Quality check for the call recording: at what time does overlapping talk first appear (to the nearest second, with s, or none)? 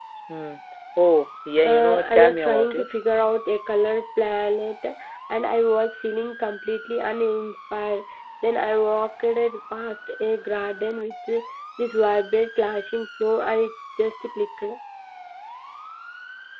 2 s